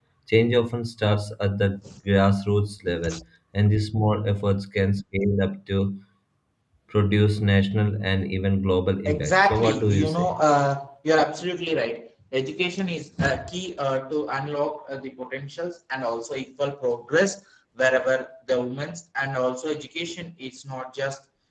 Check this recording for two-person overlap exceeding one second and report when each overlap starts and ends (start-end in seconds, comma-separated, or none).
9.1-10.4